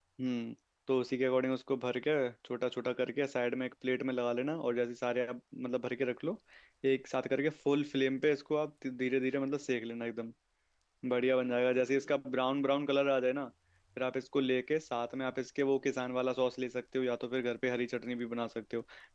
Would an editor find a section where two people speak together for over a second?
No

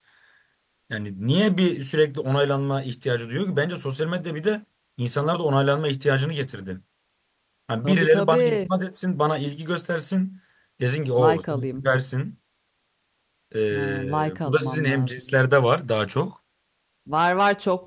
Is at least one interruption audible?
Yes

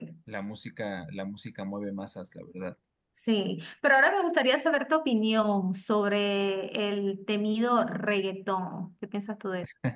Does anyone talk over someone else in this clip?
No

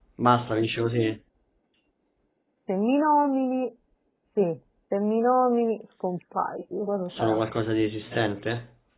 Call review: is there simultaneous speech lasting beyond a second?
No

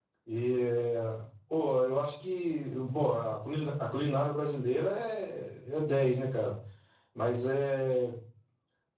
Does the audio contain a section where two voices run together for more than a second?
No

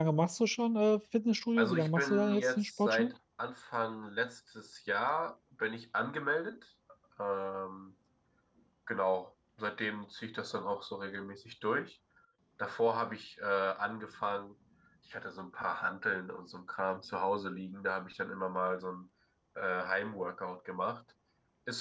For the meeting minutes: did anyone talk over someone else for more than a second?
Yes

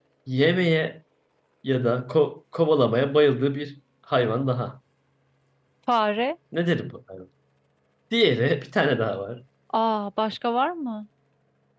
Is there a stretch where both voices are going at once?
No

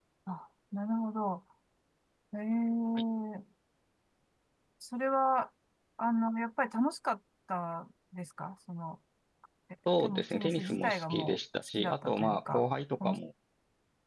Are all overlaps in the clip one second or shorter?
No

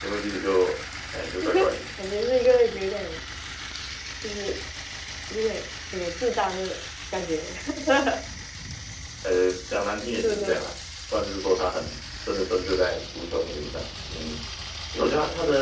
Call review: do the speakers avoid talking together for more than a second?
Yes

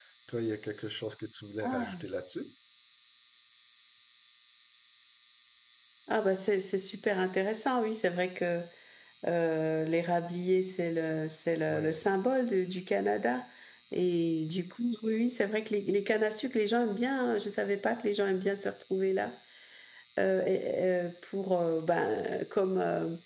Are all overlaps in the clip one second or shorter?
Yes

